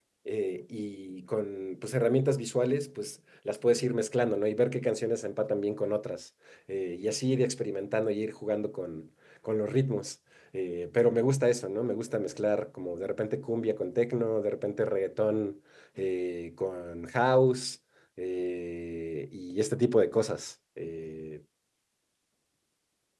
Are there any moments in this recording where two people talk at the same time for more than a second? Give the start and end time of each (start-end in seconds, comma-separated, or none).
none